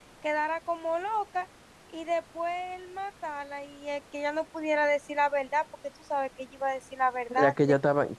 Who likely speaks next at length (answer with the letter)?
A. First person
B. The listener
B